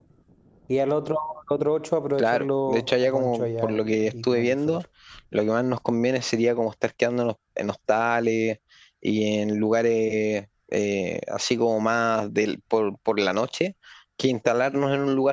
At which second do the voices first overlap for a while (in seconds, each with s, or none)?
2.2 s